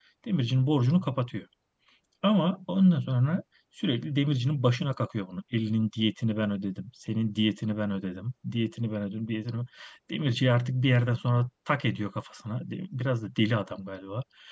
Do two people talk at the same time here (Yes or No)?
No